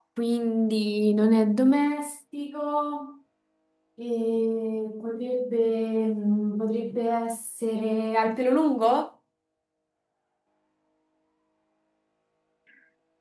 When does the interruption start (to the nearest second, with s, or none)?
none